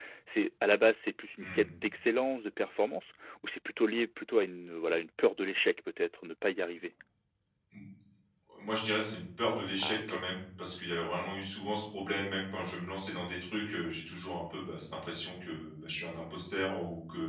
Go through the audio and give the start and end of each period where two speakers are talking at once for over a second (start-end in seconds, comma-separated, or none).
none